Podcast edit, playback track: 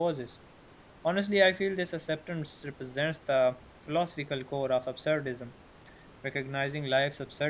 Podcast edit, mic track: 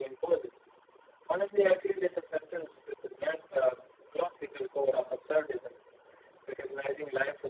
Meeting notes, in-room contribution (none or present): none